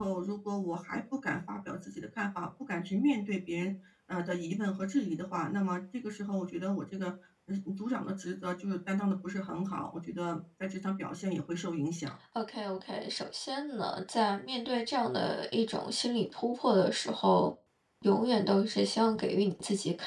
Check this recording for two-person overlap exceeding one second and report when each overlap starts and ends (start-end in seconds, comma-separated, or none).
none